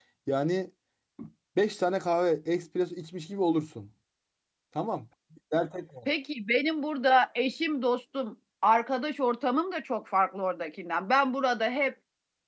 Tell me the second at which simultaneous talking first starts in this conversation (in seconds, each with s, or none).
none